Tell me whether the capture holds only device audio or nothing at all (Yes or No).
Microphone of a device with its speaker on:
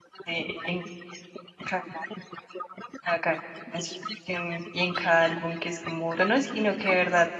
No